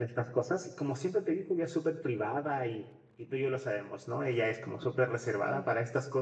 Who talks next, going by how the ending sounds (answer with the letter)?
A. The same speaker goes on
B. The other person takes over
A